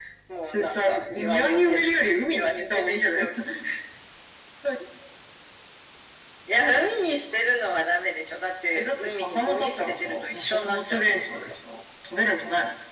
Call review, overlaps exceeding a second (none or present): present